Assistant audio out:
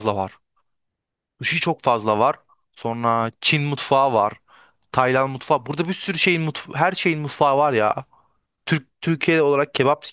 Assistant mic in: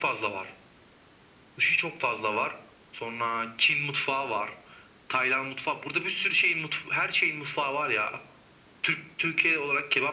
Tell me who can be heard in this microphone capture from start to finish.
echo only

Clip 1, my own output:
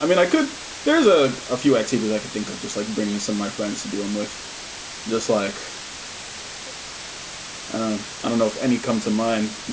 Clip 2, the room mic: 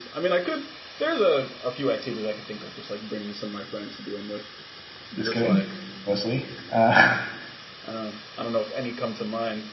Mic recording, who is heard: both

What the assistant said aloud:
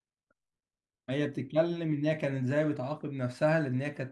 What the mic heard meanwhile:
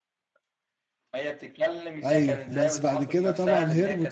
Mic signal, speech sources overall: both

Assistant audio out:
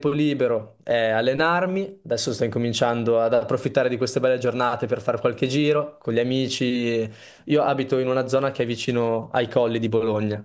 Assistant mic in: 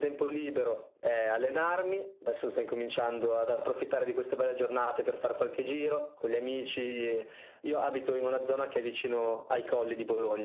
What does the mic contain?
echo only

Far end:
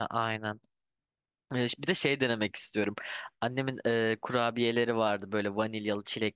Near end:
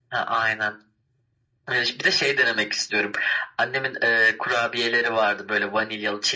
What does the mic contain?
echo only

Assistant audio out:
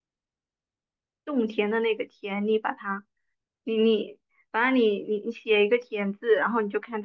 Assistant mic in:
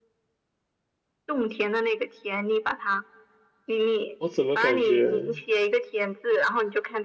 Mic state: both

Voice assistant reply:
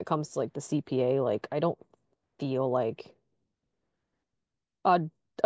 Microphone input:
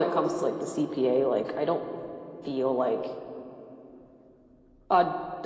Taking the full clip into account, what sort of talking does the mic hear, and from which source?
echo only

